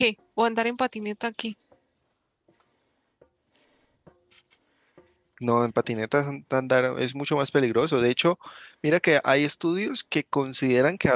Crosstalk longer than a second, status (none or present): none